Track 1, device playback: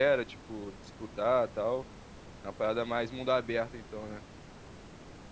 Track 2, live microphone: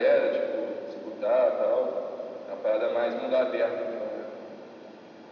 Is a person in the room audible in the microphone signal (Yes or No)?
No